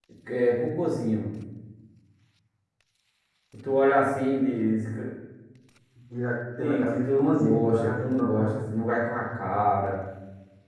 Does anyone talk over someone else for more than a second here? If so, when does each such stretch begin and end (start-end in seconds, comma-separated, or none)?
6.6-8.5